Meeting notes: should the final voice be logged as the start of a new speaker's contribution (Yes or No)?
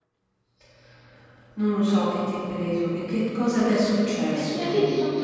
Yes